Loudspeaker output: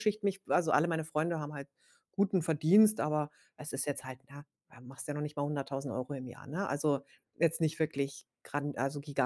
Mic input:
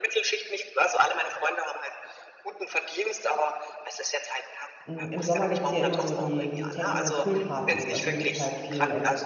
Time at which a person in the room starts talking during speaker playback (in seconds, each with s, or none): 4.8 s